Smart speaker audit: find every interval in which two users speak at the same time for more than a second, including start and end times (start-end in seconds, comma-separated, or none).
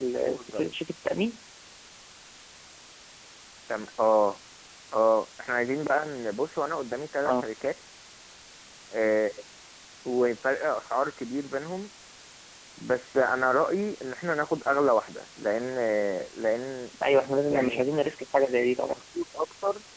none